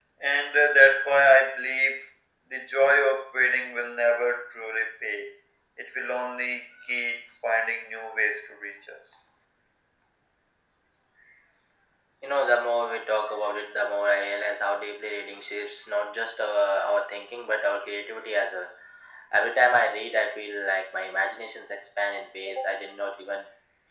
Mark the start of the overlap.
none

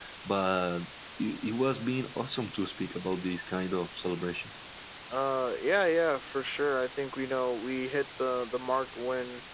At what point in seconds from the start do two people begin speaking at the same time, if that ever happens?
none

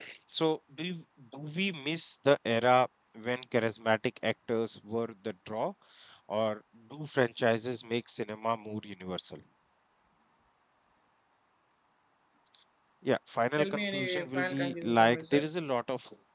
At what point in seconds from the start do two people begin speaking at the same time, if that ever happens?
13.6 s

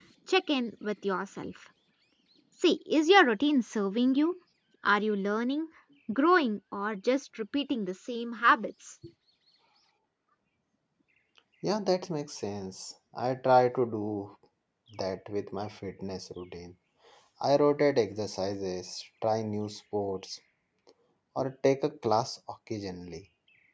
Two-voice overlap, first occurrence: none

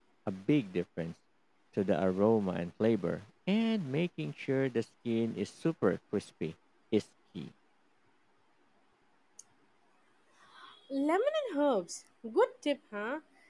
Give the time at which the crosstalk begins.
none

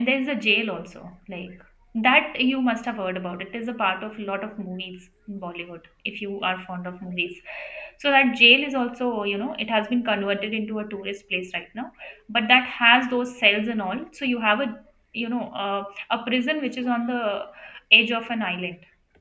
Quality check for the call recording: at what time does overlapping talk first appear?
none

